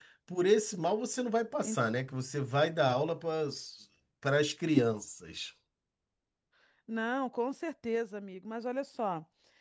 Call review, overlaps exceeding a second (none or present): none